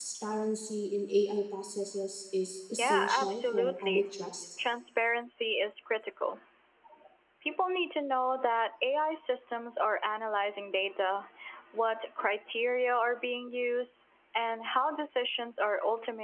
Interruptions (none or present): present